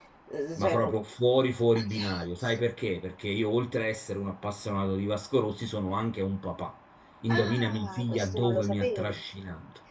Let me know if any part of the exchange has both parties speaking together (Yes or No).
Yes